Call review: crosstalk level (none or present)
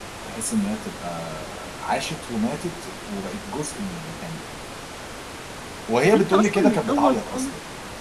present